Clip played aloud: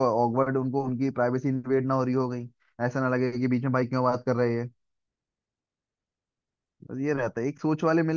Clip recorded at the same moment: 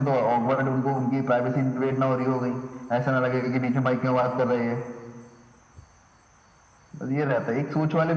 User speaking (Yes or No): No